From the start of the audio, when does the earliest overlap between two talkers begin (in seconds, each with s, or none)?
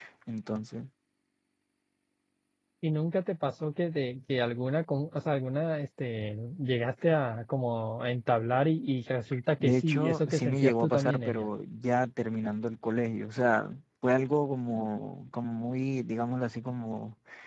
9.6 s